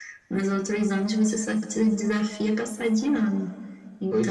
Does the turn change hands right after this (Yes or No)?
No